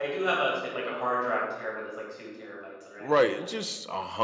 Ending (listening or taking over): taking over